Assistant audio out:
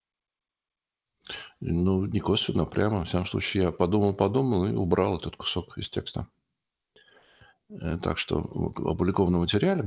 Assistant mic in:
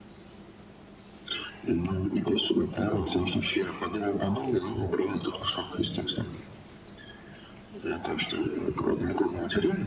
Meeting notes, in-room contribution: none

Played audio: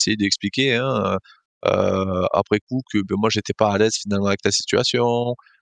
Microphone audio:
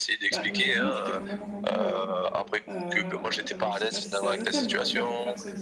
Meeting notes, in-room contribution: present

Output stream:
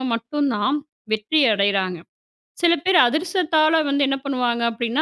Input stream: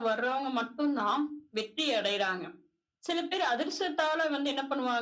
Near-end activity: none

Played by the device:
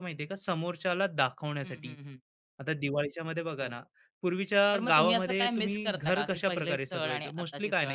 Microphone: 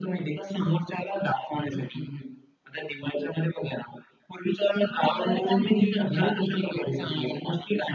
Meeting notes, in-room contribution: none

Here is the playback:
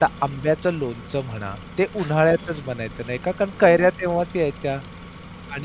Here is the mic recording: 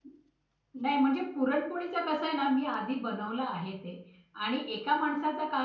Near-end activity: present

